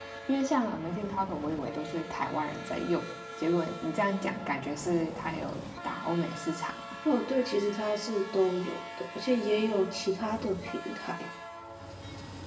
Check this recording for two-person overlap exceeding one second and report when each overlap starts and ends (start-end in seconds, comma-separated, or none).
none